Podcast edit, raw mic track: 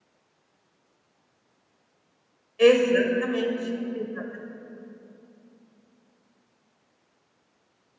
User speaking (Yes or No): Yes